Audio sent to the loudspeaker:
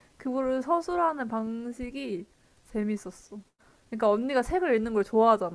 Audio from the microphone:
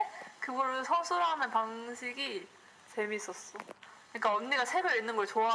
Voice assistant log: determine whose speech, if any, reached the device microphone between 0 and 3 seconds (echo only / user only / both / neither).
echo only